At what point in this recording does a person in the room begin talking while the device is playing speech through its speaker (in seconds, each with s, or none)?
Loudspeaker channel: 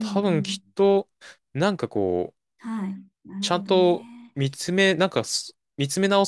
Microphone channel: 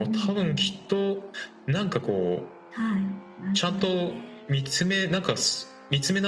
none